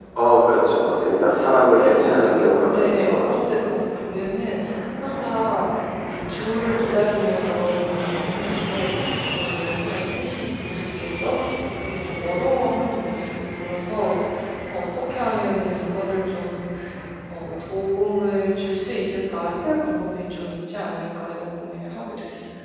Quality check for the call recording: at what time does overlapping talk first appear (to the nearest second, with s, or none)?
2 s